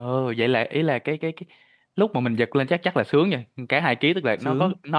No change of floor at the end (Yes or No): Yes